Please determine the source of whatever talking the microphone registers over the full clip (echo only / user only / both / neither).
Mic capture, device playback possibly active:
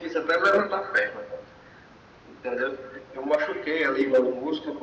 echo only